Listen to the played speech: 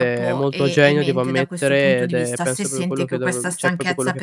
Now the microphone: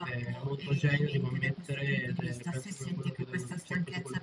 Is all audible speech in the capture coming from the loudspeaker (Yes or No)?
Yes